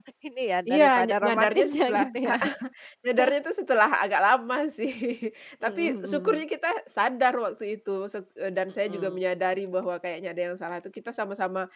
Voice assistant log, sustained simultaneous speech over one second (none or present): present